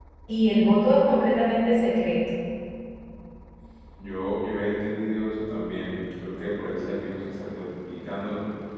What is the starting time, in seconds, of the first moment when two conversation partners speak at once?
none

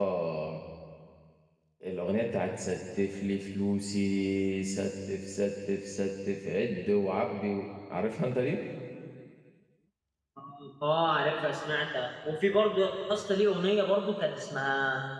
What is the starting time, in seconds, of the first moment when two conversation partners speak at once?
none

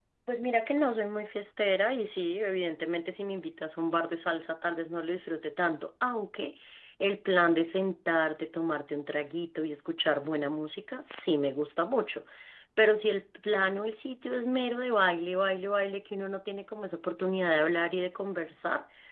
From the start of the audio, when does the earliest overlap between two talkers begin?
none

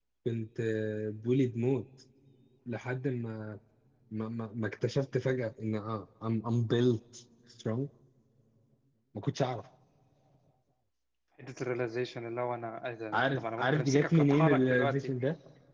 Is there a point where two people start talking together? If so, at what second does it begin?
13.1 s

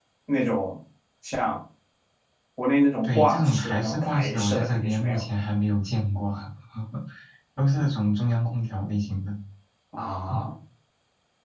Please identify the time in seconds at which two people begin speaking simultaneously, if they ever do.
3.0 s

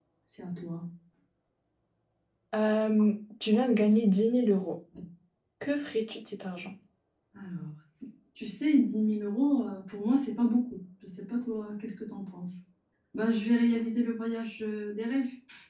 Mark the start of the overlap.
none

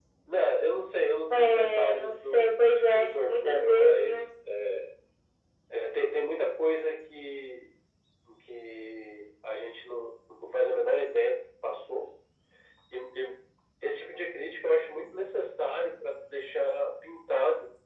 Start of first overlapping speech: 1.3 s

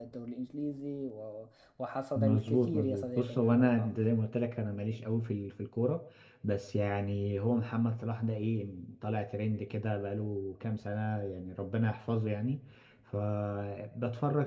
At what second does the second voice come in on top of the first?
2.2 s

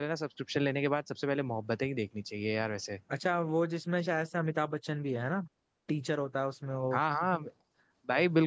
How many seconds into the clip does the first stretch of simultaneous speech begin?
none

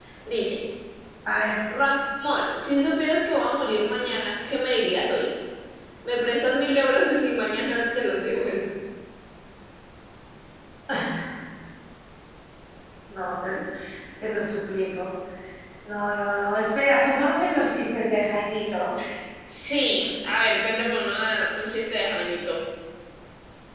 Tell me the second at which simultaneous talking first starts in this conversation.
none

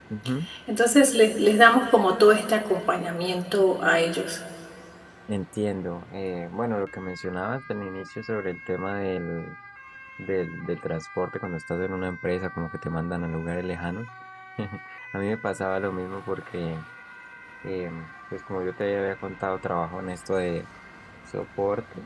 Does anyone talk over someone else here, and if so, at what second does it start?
none

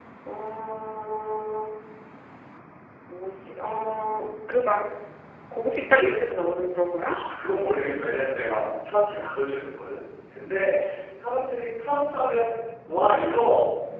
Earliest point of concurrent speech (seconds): none

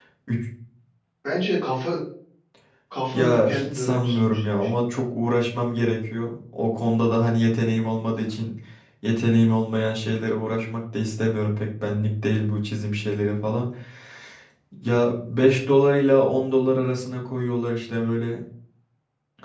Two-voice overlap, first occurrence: 3.1 s

